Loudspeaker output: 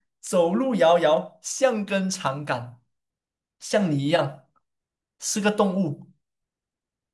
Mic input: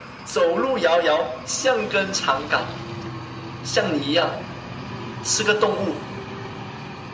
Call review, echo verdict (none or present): present